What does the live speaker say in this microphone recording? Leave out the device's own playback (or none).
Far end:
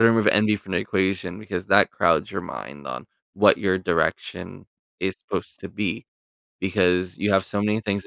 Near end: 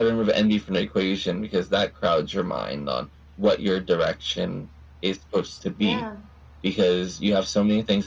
Yeah.